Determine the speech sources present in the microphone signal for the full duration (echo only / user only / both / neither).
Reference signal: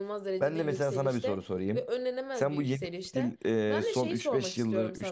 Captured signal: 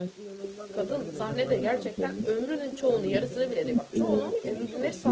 both